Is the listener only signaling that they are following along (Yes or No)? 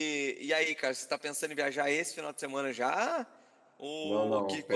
No